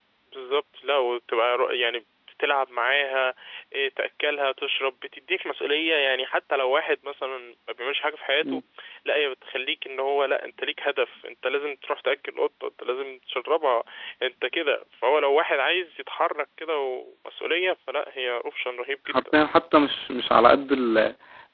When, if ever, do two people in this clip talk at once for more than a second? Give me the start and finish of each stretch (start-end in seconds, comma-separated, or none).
none